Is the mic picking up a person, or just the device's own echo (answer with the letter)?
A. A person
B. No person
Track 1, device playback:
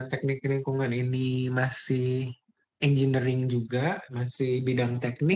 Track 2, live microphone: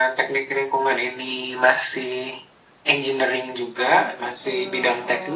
A